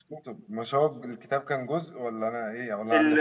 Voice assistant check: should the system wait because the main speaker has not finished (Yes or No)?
No